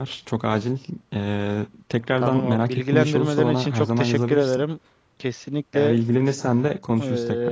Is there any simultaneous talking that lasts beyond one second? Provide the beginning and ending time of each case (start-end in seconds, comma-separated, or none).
2.2-4.6